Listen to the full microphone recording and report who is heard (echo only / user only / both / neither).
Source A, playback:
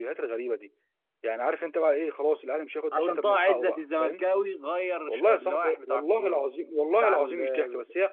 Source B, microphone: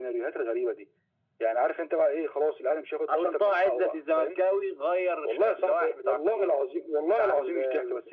echo only